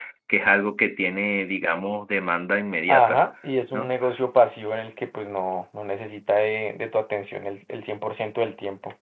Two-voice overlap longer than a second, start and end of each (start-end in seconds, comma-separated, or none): none